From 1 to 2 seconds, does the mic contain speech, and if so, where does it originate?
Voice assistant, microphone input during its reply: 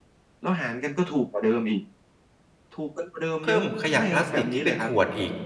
echo only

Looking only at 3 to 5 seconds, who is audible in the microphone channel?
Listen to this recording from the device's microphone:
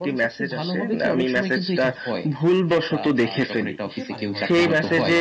both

